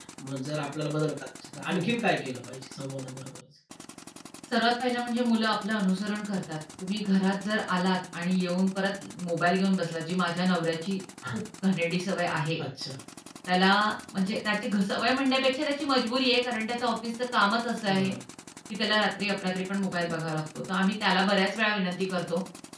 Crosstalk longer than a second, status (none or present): none